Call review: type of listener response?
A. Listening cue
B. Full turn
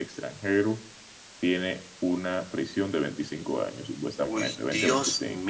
B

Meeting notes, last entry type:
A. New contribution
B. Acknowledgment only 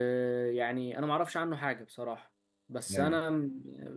B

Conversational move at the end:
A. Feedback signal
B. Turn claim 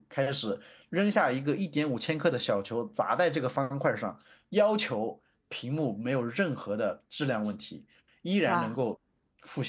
A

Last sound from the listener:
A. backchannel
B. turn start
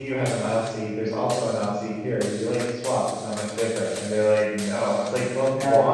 A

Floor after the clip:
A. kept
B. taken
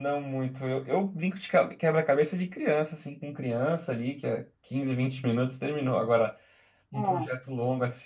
A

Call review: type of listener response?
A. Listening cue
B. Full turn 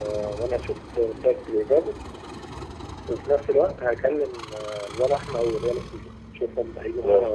B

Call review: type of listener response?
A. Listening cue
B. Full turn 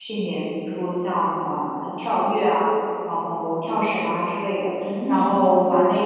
A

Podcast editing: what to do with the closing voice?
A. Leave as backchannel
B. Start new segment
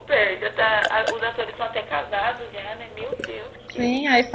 B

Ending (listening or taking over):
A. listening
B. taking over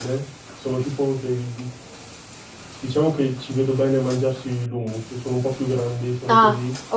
B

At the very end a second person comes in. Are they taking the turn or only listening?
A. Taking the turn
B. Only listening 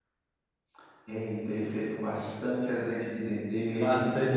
A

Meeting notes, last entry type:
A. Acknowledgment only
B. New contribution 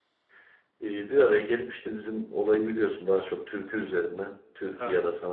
A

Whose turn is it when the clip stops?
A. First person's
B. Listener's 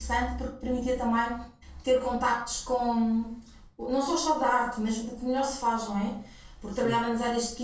A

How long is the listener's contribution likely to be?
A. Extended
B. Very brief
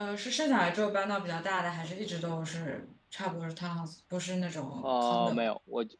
A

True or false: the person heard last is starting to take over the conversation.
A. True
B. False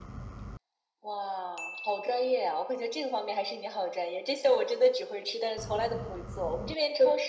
B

